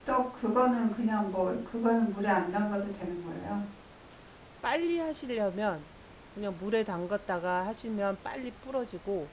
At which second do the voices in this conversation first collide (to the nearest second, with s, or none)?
none